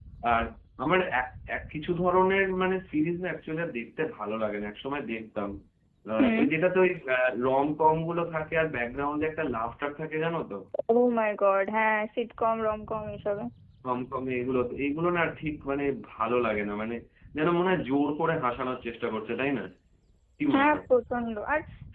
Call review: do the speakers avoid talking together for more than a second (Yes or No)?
Yes